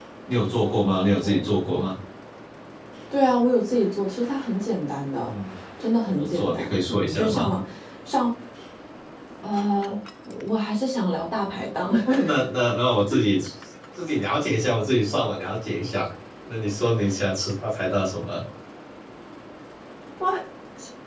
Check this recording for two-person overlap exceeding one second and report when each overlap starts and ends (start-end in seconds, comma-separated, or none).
6.1-7.5